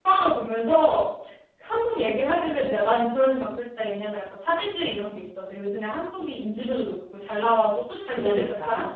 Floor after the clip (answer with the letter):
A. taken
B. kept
B